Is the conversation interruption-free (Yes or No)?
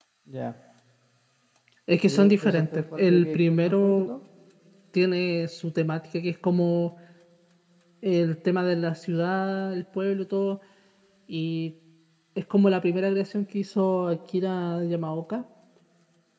No